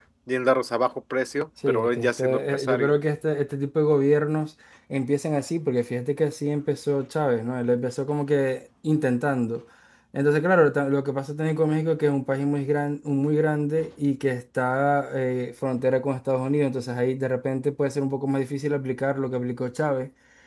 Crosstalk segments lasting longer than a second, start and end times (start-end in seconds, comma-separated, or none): 1.7-2.9